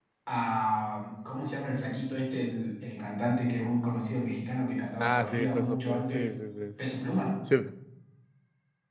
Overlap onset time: 5 s

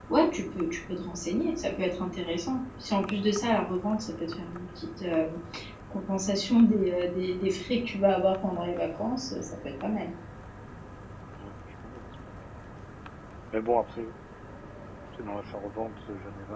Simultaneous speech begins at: none

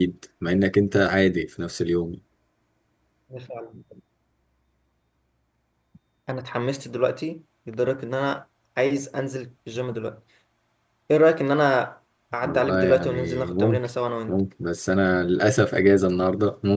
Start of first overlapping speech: 12 s

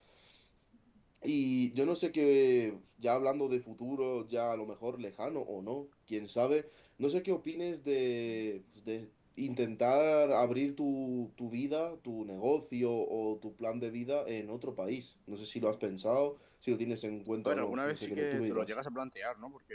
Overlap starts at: 17 s

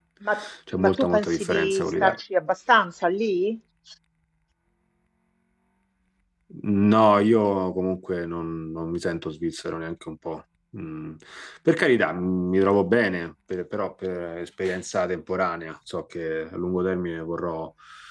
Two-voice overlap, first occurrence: 1 s

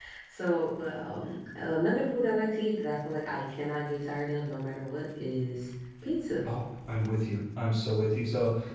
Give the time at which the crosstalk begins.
none

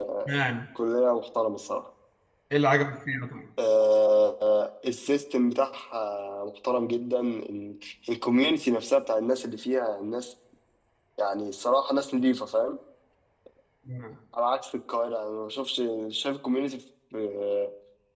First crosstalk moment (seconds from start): none

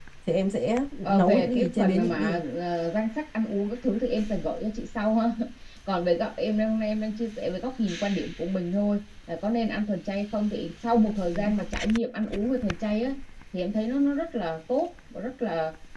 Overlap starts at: 1 s

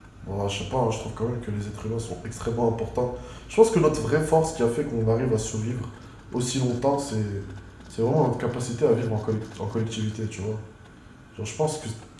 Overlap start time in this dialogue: none

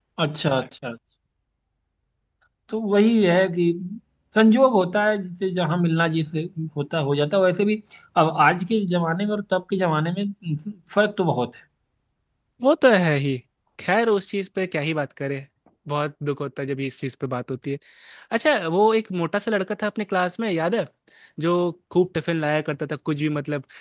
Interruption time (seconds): none

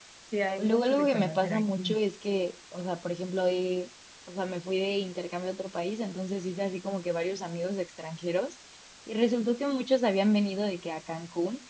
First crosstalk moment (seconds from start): 1 s

